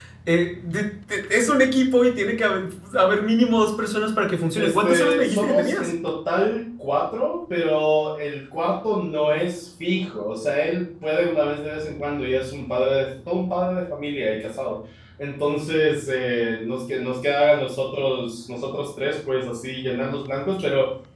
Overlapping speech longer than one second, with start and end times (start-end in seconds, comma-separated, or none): 4.6-5.9